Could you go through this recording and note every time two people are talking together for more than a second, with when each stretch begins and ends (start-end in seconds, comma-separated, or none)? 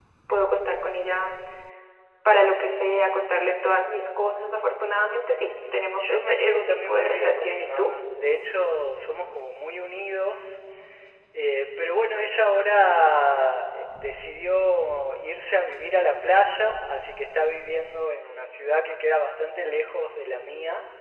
6.0-8.0